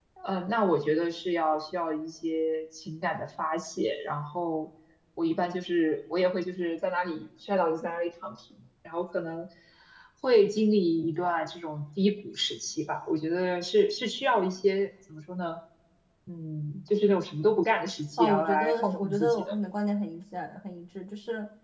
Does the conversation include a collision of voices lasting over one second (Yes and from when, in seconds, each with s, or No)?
Yes, from 18.2 s